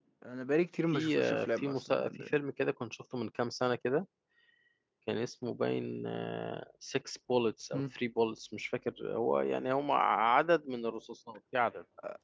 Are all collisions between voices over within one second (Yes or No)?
No